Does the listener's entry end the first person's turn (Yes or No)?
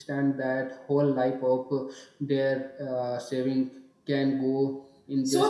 Yes